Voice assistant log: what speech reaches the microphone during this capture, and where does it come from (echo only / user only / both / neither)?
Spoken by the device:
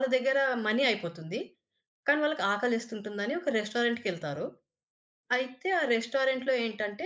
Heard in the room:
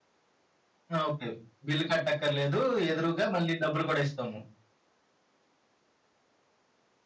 user only